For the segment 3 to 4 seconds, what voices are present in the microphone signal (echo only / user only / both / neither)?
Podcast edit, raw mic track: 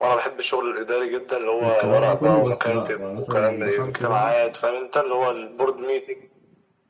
both